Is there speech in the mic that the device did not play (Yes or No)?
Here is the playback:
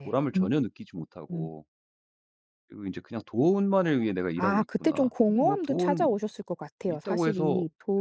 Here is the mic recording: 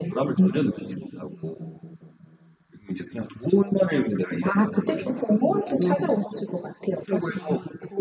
No